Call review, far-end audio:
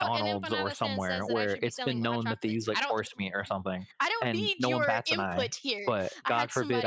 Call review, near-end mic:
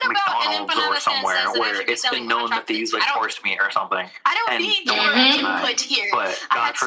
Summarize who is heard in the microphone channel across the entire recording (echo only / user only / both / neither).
both